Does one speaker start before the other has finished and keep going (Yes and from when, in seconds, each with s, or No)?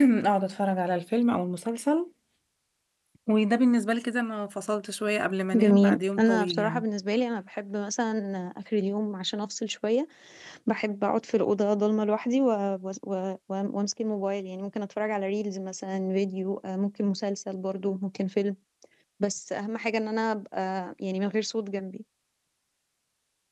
Yes, from 5.5 s